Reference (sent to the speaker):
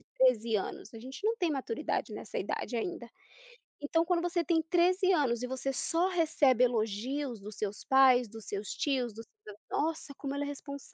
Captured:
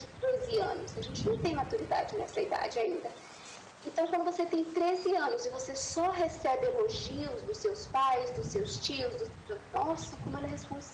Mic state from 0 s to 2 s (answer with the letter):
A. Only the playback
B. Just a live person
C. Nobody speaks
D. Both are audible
A